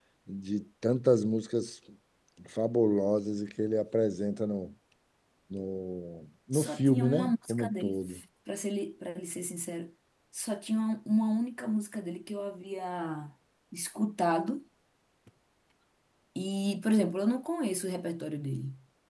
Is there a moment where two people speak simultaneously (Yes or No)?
Yes